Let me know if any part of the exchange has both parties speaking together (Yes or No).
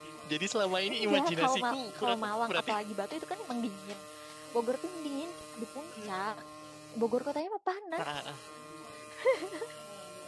Yes